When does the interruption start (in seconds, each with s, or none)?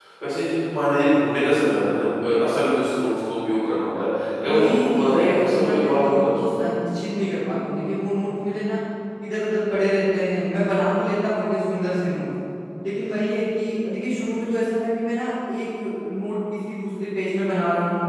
4.4 s